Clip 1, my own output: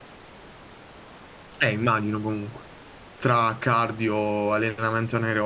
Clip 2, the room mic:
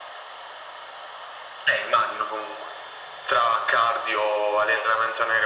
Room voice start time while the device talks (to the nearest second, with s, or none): none